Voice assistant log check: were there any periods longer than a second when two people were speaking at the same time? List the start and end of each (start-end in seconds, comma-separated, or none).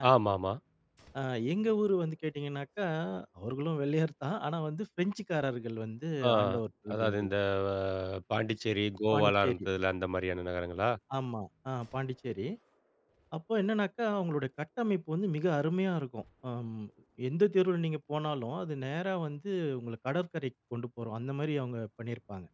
none